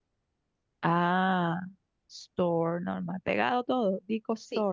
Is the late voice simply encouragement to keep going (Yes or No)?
No